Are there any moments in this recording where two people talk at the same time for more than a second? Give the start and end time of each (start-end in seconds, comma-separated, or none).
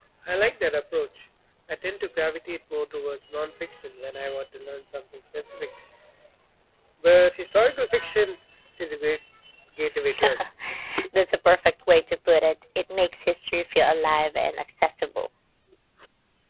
none